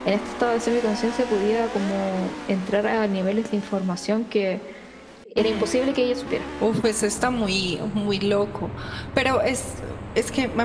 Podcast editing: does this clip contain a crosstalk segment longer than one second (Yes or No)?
No